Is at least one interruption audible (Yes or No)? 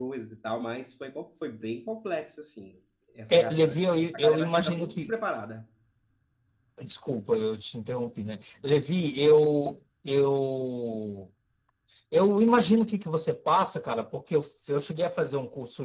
Yes